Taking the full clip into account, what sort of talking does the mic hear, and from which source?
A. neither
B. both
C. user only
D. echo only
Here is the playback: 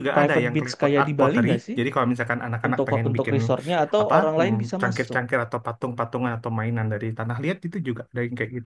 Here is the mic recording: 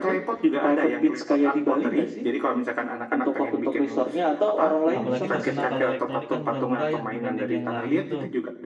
B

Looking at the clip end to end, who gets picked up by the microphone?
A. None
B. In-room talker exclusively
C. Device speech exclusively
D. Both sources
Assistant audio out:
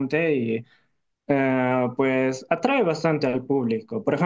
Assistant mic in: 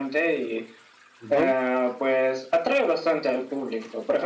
D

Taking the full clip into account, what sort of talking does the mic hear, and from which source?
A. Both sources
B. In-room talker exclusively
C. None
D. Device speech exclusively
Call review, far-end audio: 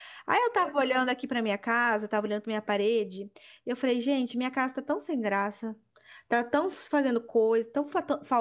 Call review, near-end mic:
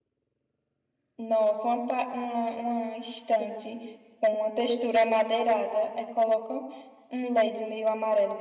B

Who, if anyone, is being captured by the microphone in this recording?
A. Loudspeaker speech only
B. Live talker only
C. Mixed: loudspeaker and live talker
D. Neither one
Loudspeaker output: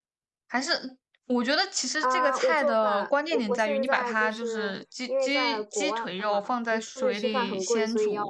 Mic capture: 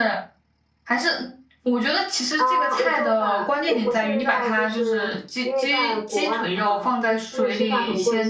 A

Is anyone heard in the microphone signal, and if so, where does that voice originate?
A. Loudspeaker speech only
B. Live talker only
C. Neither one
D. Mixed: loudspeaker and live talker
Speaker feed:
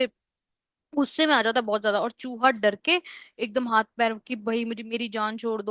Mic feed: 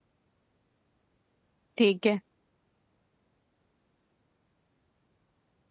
B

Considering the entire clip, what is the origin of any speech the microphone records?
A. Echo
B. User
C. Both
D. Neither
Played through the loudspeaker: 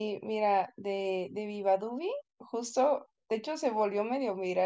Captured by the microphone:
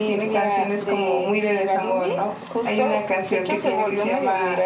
C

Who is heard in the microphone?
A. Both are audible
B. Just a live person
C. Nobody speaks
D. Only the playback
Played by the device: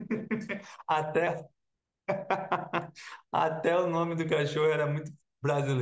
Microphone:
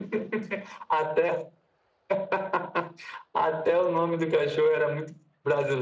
D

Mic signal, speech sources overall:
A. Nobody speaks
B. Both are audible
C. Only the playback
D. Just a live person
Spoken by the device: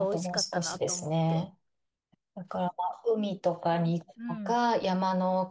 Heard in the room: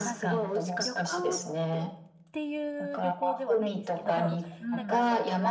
B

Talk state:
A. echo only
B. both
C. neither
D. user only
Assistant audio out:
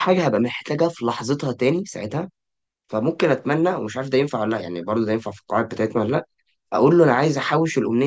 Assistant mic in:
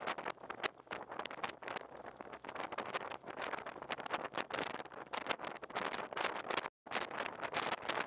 C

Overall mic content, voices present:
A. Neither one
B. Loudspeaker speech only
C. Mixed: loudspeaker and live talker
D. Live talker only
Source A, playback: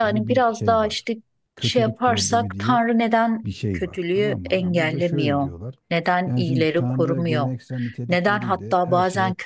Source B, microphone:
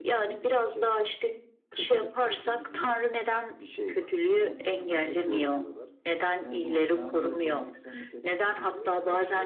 B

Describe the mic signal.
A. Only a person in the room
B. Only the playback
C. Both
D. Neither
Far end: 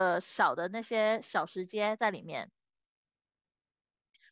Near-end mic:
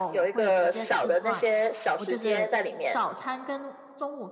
C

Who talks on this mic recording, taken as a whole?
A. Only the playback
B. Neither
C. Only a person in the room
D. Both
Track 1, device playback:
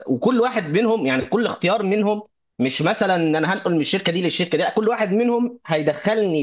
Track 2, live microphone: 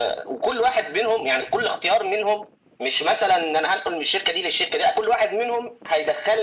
A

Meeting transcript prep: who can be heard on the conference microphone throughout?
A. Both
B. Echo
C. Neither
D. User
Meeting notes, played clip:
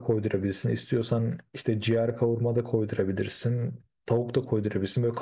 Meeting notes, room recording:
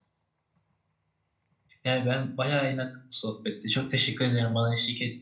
D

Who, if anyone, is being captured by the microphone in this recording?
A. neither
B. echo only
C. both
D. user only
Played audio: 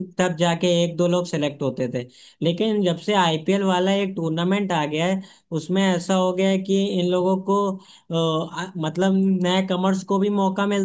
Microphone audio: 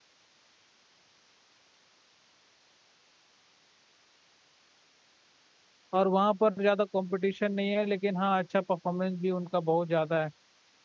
D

